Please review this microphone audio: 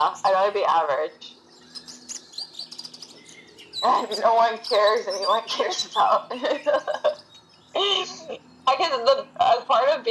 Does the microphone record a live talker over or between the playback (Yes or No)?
No